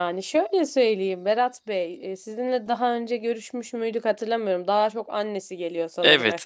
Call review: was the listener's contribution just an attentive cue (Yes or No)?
No